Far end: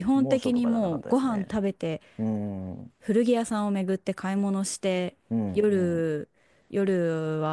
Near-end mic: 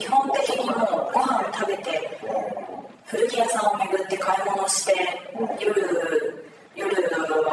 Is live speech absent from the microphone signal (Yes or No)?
Yes